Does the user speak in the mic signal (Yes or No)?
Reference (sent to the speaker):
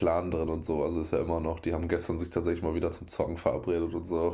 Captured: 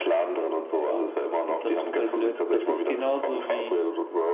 Yes